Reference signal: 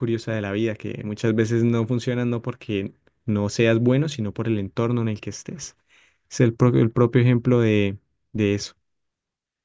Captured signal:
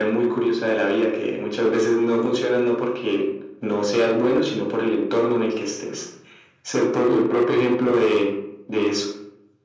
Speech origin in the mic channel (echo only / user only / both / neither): echo only